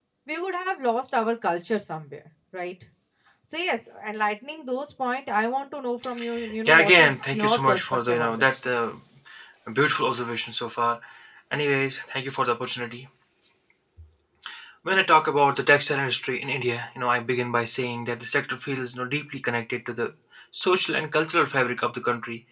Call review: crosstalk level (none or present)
present